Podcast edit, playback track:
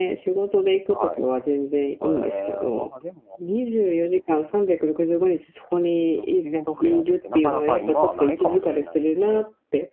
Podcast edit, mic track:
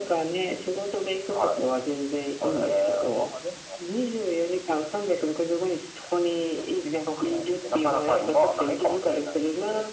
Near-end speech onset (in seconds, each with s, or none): none